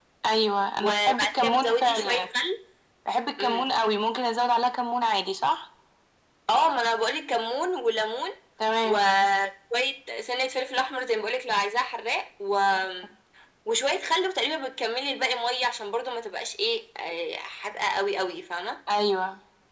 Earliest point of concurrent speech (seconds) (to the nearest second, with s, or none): 1 s